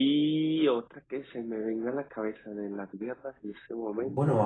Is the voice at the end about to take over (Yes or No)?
Yes